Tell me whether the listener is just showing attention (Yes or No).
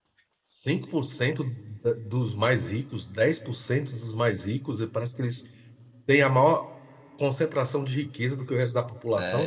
No